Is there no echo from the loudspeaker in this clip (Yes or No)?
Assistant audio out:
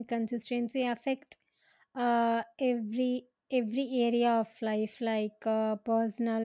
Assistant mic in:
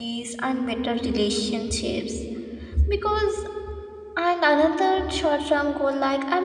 Yes